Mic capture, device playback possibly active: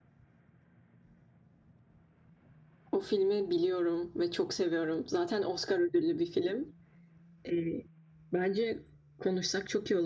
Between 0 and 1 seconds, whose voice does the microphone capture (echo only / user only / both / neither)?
neither